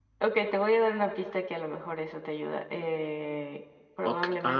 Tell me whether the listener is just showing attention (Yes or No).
No